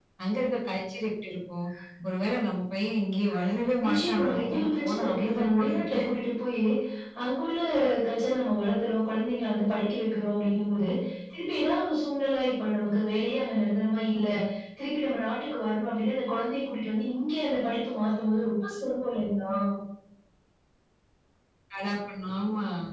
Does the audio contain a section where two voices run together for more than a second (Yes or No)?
Yes